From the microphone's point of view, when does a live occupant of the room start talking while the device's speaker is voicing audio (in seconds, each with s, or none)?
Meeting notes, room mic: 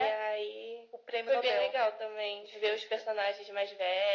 none